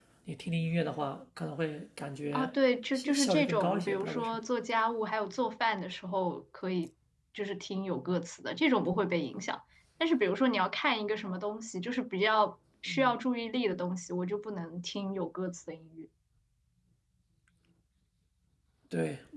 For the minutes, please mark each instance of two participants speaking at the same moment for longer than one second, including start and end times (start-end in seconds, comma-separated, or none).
2.9-4.4